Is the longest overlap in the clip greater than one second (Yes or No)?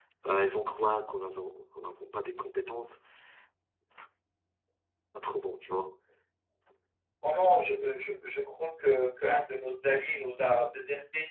No